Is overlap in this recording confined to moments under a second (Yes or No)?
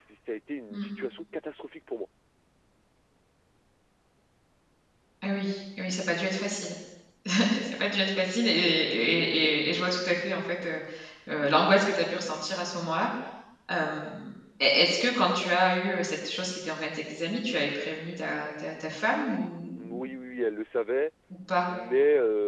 Yes